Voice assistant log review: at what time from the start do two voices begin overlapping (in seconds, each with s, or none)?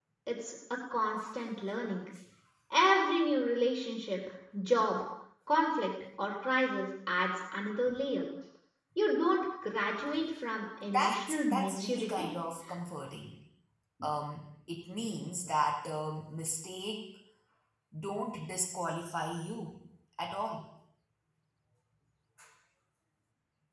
10.9 s